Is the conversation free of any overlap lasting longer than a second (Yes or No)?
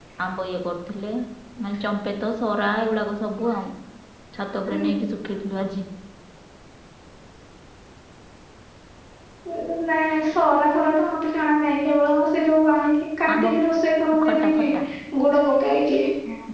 Yes